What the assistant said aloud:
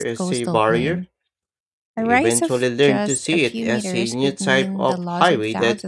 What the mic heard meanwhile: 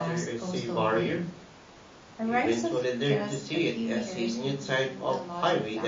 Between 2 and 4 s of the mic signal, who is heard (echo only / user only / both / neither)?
echo only